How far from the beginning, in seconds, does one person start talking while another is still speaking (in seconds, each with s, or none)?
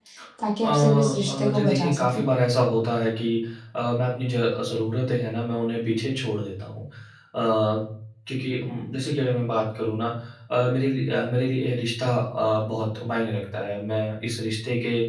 0.6 s